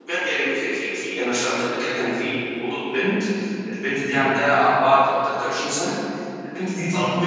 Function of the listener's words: listening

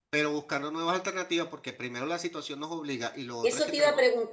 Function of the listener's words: taking over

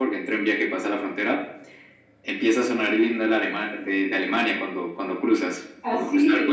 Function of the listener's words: listening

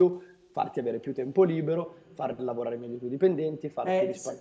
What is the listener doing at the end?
taking over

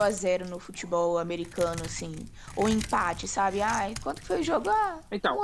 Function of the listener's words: taking over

